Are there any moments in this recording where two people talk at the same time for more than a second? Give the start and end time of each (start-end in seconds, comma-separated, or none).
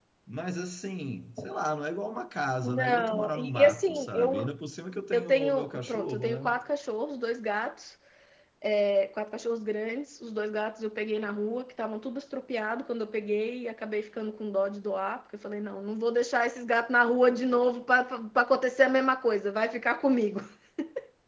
2.6-4.5, 5.1-6.5